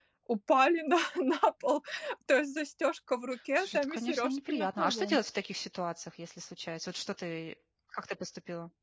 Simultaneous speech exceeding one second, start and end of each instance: 3.6-5.2

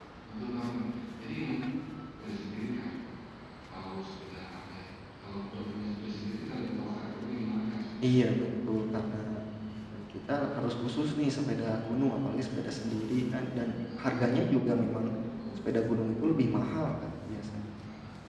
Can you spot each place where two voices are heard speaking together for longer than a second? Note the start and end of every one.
none

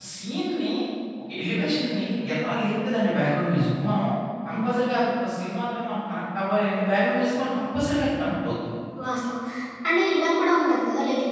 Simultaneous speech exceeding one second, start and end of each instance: none

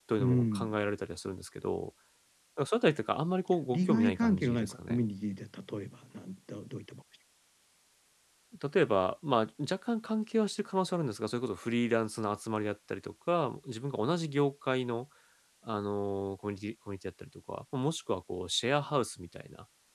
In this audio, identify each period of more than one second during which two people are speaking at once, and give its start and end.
3.7-5.0

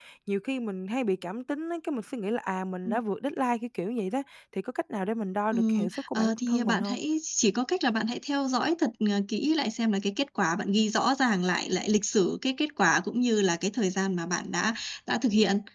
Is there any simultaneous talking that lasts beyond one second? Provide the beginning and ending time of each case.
5.5-7.0

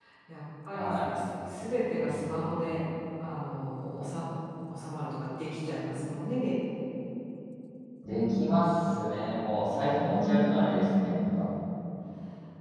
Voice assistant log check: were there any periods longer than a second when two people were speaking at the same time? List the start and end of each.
10.0-11.4

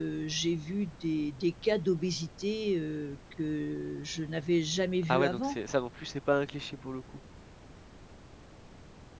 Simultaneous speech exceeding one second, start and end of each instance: none

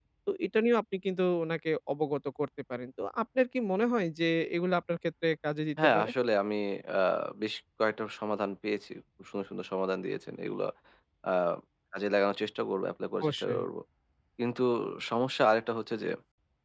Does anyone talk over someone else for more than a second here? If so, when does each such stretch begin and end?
none

